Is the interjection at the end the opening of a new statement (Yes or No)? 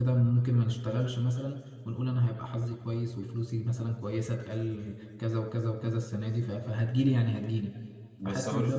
No